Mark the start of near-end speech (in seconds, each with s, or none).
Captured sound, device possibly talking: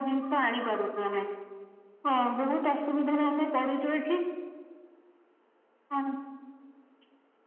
none